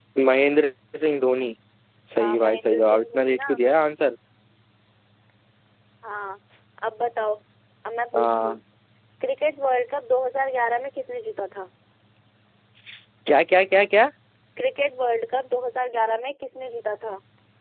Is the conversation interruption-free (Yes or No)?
No